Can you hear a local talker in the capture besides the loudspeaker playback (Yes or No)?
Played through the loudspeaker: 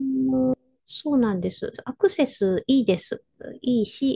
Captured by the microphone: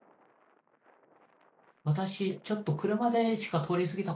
Yes